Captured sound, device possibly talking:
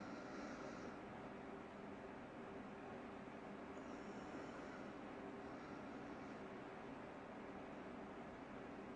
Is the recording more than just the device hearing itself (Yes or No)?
No